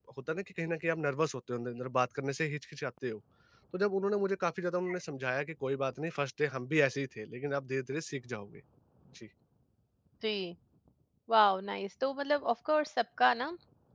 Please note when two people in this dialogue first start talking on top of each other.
none

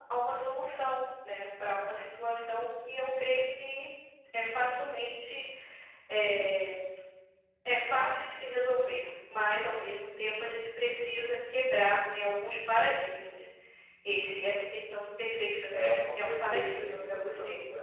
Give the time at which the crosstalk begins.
15.7 s

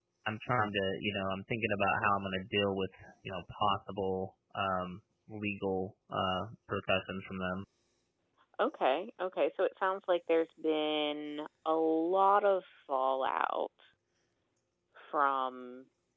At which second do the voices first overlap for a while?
none

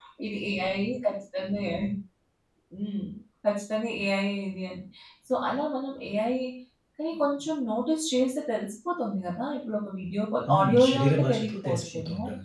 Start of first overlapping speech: 10.5 s

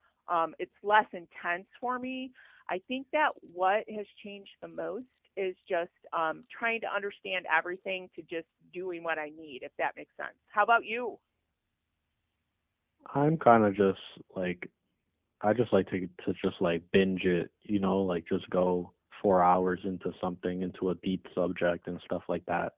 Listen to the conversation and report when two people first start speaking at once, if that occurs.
none

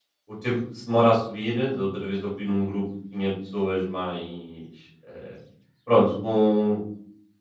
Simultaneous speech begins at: none

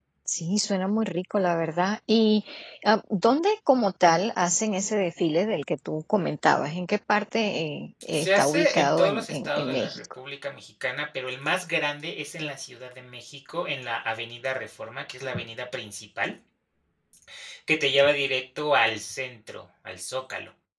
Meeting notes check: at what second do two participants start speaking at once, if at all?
8.0 s

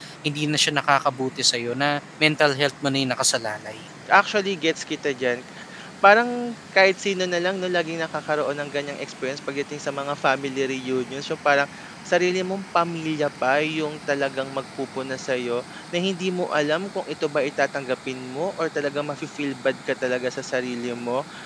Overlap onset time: none

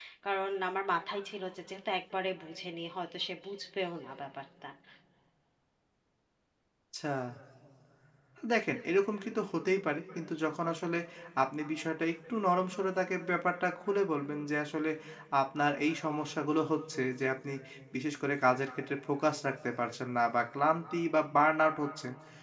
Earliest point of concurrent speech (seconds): none

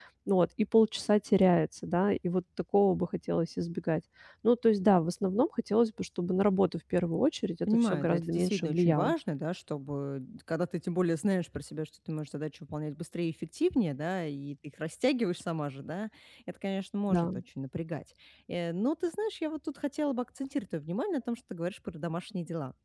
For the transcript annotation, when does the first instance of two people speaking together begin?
7.7 s

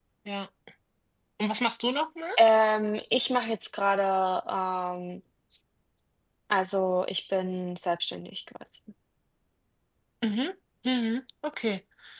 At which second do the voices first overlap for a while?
none

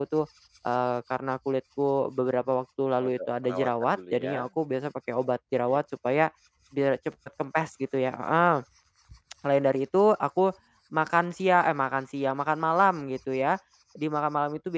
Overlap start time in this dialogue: 3.0 s

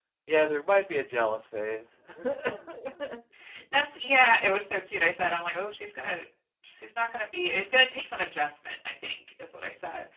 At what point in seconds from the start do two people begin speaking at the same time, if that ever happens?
none

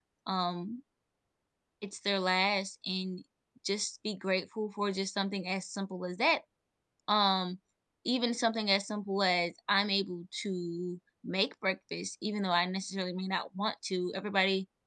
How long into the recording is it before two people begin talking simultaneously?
none

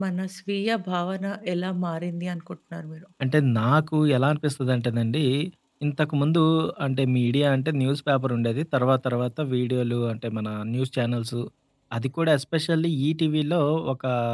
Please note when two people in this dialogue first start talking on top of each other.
none

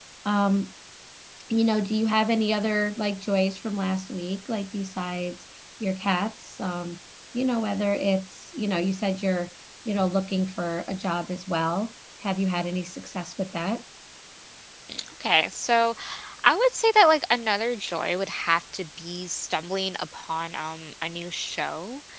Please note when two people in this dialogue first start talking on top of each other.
none

